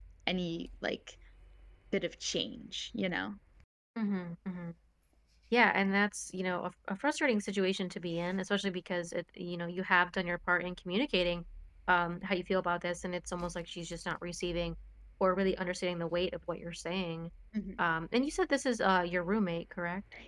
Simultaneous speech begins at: none

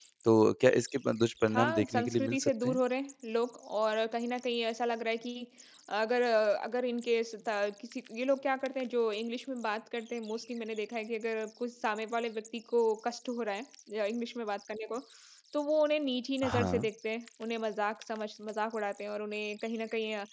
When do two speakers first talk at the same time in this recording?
1.5 s

